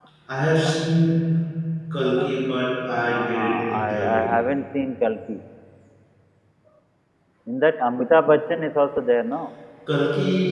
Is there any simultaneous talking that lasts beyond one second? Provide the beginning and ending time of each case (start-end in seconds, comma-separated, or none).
3.0-4.2